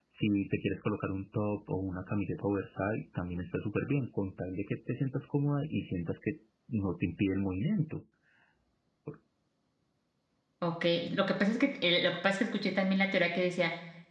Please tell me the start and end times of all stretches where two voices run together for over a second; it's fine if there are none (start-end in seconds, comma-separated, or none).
none